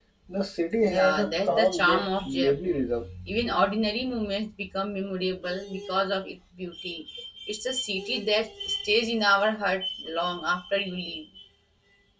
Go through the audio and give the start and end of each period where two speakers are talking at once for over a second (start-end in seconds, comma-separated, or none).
0.8-2.8